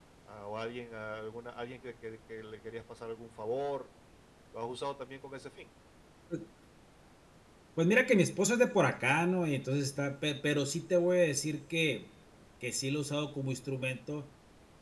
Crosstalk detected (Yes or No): No